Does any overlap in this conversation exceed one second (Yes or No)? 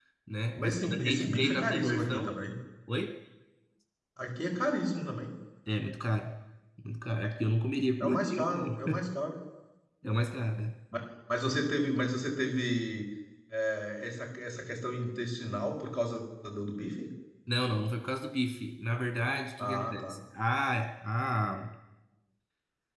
Yes